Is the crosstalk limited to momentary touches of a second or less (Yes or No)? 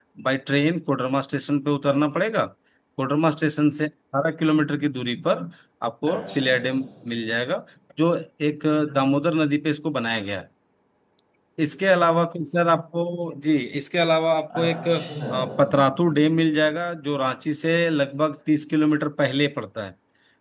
Yes